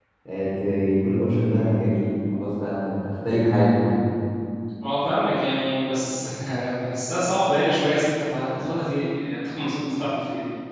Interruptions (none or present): none